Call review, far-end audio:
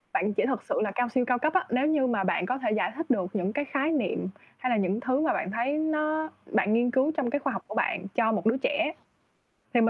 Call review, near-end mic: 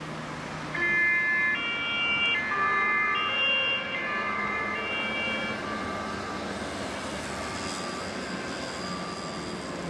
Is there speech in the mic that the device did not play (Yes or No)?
No